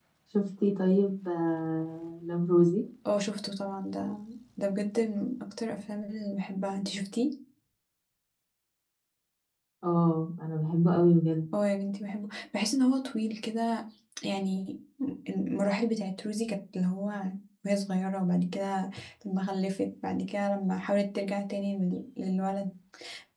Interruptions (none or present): none